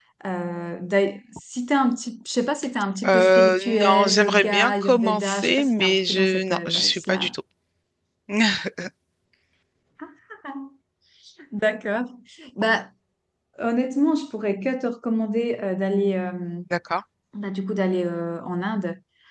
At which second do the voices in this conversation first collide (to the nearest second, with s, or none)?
3 s